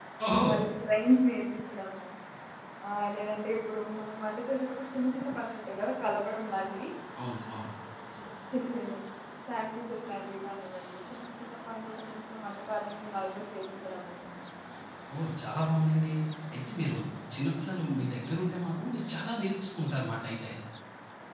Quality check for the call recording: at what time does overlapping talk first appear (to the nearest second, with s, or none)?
none